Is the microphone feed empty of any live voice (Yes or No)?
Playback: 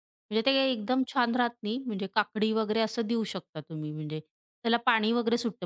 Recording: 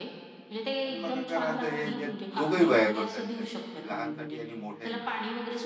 No